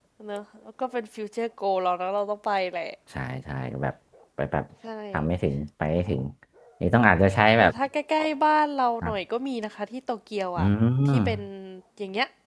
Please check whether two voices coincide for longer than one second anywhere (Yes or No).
No